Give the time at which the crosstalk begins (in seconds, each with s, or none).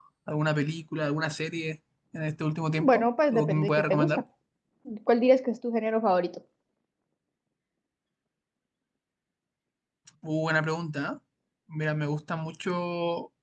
2.8 s